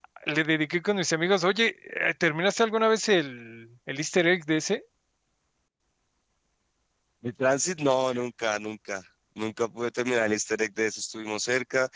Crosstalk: none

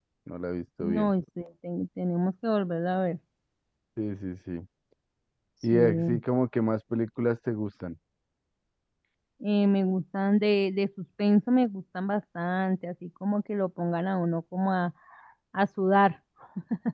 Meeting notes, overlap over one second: none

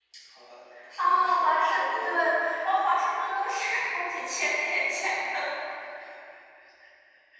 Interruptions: present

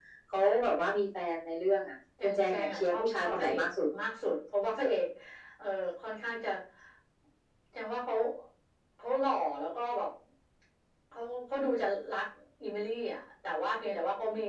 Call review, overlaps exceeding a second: present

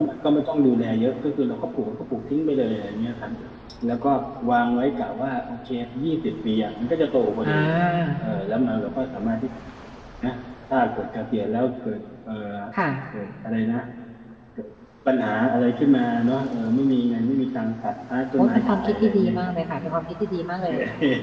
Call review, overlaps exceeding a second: present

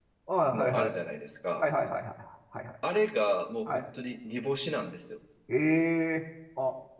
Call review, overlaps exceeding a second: none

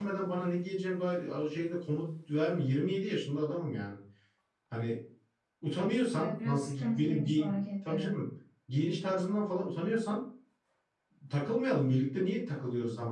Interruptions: present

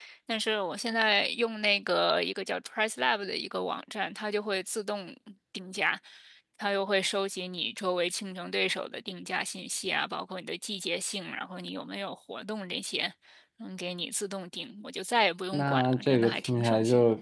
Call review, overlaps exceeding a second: present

